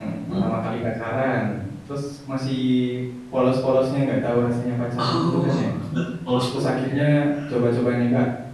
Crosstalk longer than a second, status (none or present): none